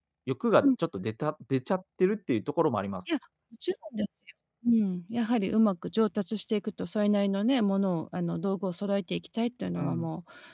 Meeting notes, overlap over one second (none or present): none